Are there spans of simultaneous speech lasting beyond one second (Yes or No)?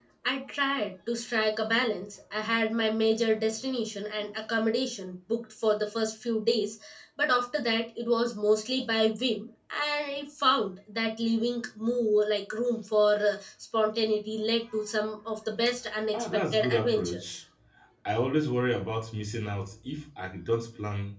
Yes